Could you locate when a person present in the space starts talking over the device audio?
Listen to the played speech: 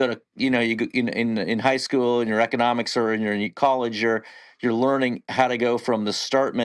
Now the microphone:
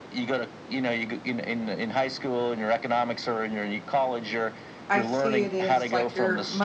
4.9 s

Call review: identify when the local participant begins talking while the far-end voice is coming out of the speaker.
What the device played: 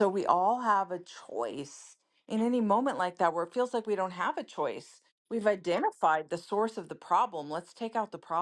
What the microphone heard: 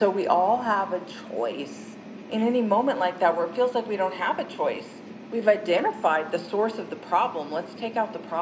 none

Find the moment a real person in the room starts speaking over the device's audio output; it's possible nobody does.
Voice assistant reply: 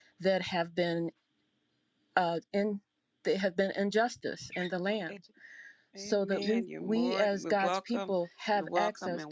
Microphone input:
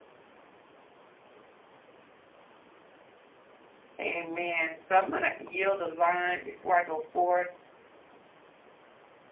4.0 s

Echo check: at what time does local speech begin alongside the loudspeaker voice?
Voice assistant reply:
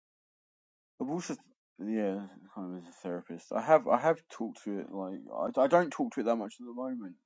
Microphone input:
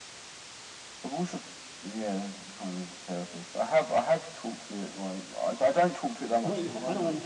6.2 s

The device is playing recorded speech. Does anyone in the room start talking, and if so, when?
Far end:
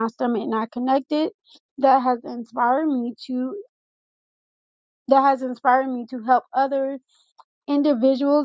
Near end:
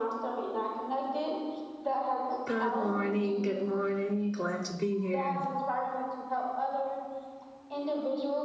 2.5 s

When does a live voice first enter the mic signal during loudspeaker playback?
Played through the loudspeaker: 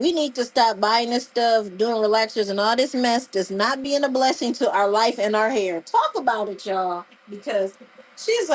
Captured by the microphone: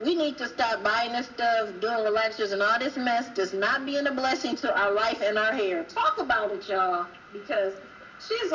none

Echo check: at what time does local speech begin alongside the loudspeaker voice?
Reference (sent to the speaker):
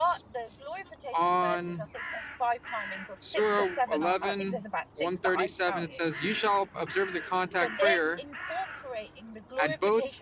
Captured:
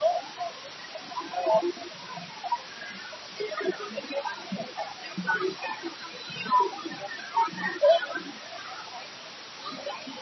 none

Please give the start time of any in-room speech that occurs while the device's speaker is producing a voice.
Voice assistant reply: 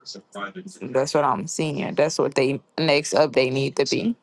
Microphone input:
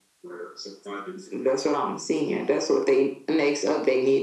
none

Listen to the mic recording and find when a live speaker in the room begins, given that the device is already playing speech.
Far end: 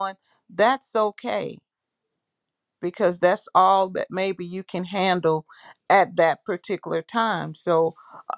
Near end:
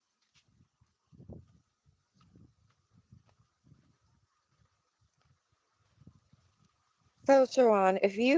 7.2 s

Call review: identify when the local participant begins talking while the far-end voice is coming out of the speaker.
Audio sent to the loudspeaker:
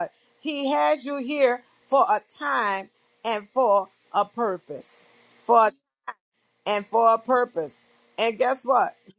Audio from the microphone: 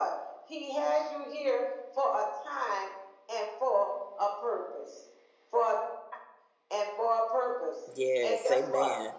7.9 s

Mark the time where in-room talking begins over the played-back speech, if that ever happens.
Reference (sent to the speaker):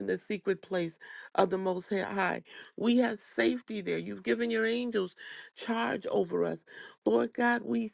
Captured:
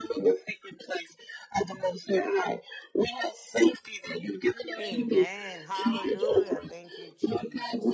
4.8 s

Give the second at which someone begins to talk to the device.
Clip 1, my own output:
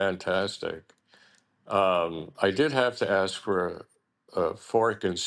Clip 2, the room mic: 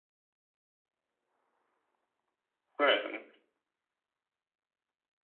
2.8 s

